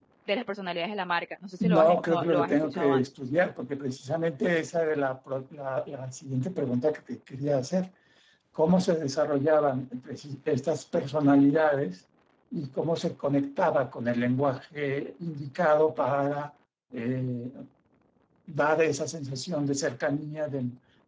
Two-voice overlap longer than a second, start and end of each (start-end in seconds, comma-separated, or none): 1.6-3.0